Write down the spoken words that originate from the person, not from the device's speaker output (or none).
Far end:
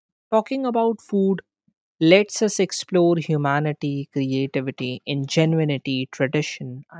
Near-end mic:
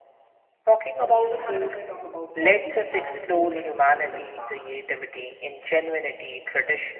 On the other hand, if I talk about coffee, it has a similar global impact.